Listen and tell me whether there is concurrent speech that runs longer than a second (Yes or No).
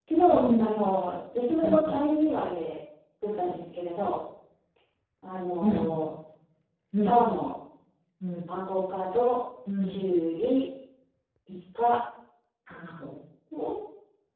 No